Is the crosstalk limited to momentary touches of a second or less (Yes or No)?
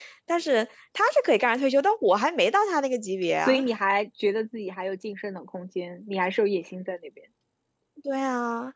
Yes